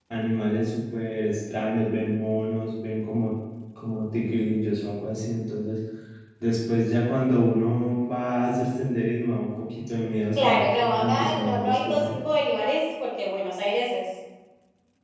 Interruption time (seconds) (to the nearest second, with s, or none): 10 s